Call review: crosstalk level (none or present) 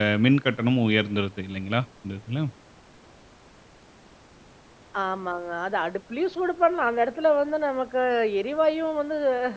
none